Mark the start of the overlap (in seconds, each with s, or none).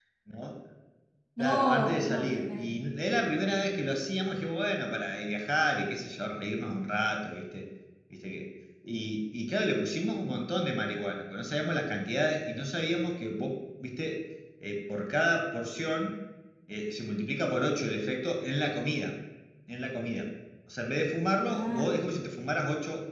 1.4 s